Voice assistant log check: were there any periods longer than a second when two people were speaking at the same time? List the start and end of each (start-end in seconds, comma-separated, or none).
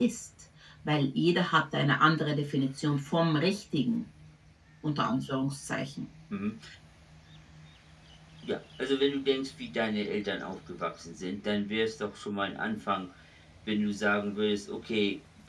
none